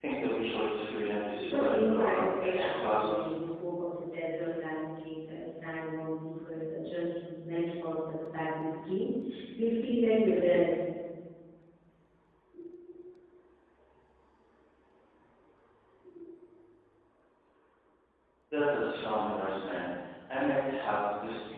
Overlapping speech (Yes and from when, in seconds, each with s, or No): Yes, from 1.4 s